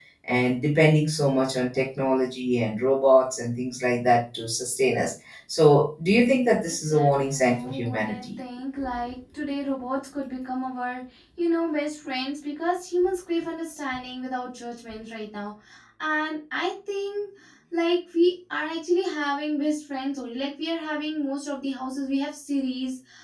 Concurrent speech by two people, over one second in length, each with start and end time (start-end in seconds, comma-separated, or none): 6.7-8.2